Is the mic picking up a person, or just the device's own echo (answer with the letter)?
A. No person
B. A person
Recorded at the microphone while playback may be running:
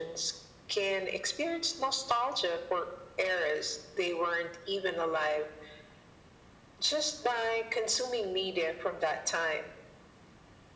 A